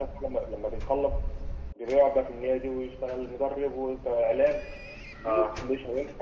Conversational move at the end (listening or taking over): listening